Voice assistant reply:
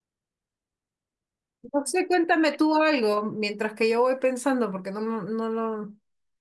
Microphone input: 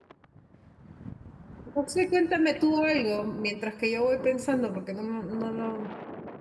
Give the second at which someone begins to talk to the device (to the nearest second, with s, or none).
none